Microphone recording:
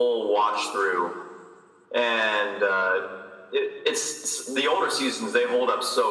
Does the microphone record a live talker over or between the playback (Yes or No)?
No